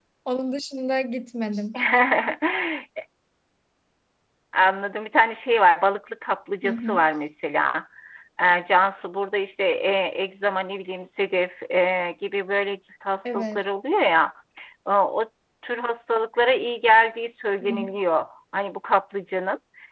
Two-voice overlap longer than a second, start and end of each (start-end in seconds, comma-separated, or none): none